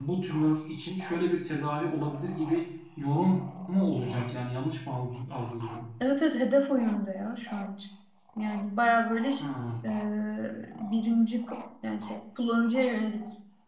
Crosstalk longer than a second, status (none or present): none